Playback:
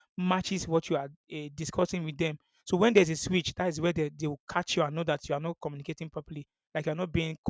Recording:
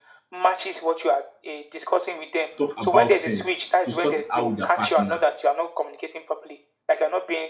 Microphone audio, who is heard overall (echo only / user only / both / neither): both